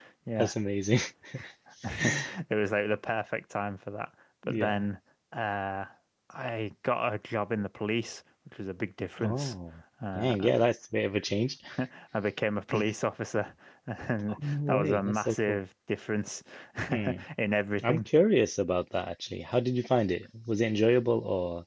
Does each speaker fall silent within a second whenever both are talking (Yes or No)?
No